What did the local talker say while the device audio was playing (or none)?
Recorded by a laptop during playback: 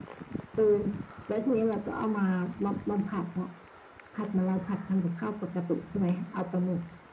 none